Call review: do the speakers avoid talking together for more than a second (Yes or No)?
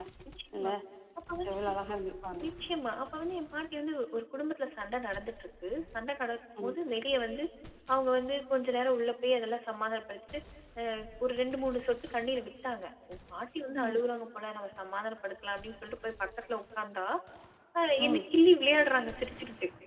Yes